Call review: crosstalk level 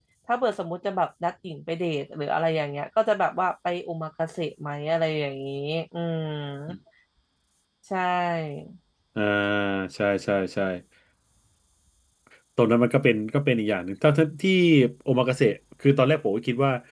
none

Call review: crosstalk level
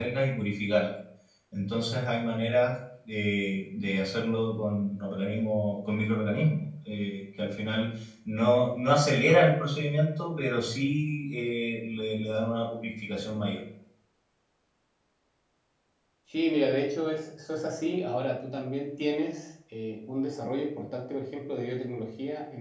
none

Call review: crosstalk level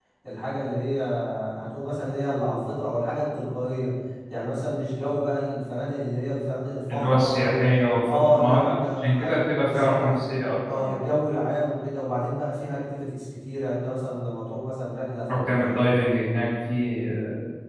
present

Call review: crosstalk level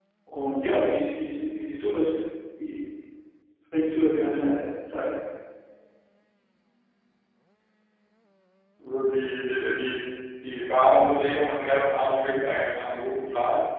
none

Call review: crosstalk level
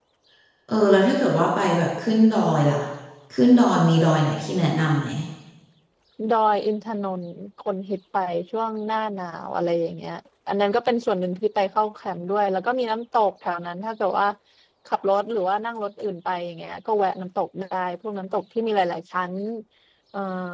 none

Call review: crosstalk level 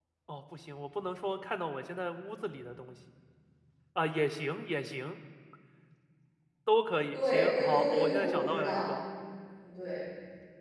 present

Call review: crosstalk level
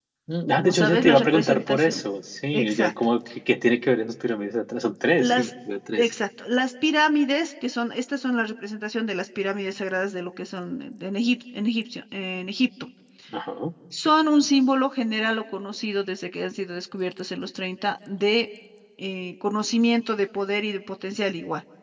present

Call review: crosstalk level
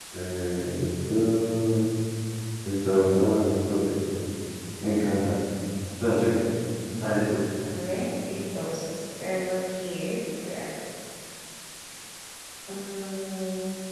none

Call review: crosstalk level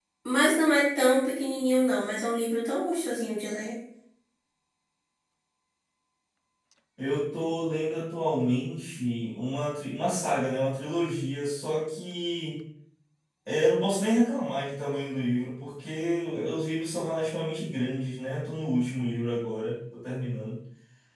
none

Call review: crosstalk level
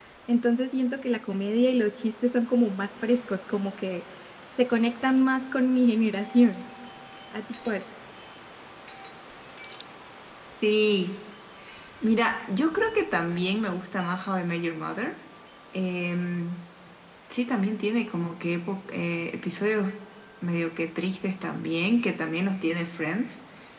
none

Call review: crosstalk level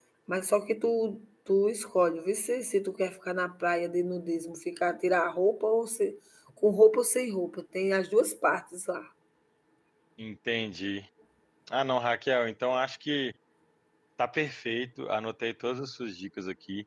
none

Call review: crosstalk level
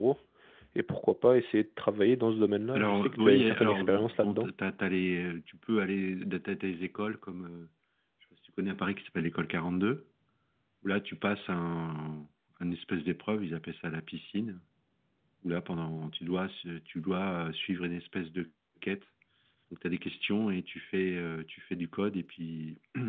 present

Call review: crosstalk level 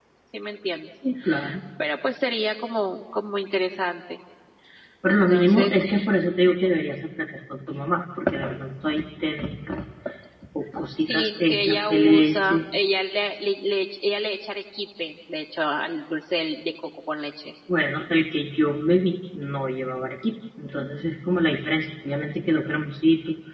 present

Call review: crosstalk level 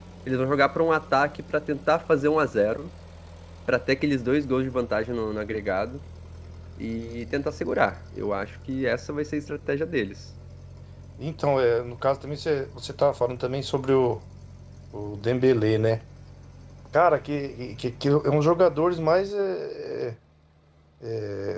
none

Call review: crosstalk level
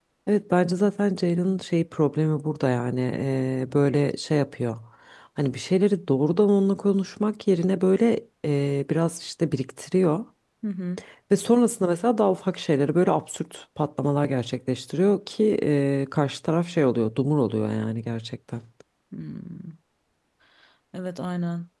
none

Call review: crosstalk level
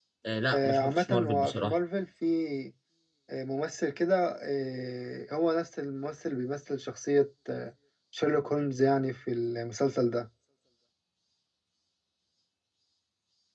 present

